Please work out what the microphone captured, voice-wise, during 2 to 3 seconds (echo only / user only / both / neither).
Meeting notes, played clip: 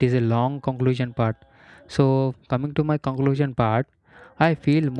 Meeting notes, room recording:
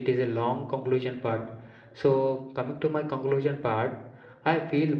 echo only